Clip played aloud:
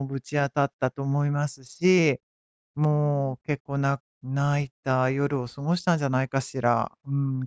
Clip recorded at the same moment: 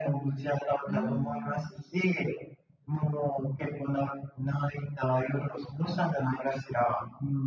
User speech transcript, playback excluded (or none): うーん。